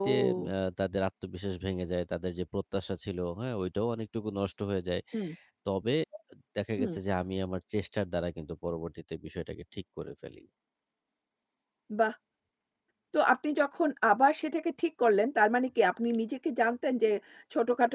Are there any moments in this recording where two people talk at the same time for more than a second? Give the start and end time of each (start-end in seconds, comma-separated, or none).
none